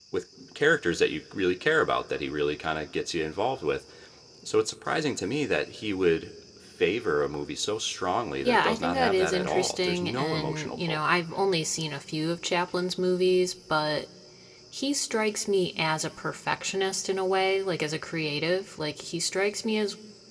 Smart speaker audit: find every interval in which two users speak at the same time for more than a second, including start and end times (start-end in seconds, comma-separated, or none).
8.4-11.0